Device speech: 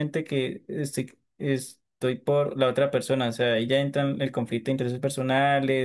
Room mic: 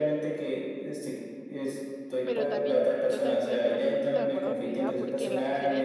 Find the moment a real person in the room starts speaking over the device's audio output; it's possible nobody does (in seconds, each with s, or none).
2.2 s